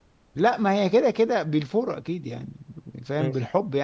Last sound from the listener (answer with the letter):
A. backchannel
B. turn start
A